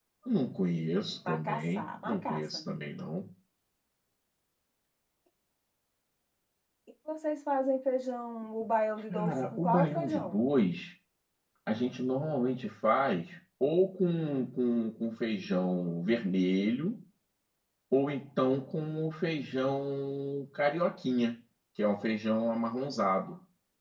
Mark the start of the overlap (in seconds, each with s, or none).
1.3 s